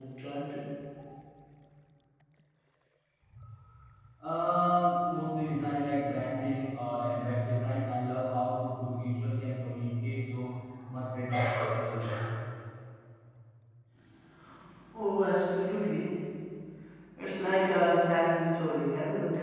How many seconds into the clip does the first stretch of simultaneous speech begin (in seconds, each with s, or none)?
none